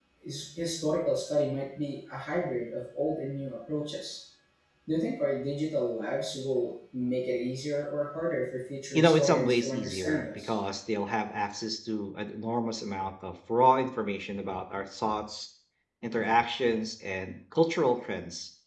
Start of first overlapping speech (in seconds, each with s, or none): 8.9 s